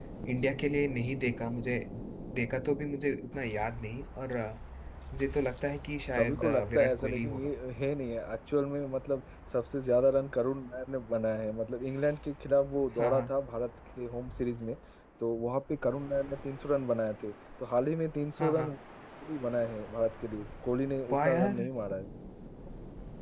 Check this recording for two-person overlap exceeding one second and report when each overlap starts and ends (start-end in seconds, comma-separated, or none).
6.1-7.5